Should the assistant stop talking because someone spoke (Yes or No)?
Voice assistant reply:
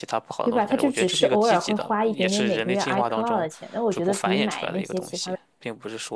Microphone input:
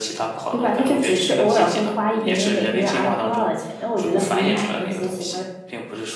No